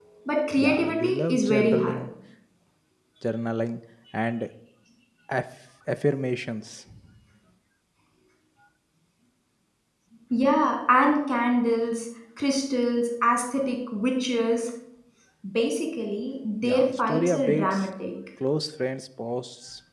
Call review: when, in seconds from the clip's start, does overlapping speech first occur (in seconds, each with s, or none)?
0.6 s